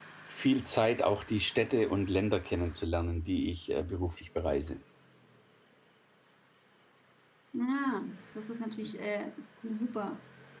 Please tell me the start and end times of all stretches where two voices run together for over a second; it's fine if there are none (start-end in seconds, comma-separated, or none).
none